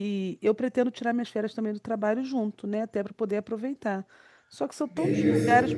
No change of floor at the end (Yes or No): Yes